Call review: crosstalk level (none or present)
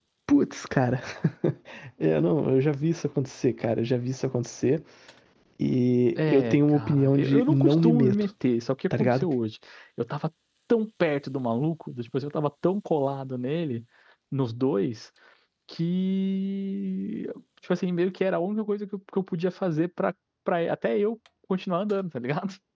present